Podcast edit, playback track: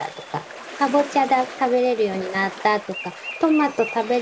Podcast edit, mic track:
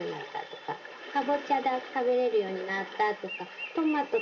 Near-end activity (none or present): none